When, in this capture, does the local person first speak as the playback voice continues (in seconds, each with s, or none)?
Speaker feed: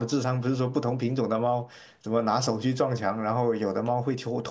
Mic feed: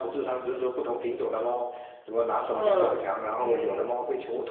2.5 s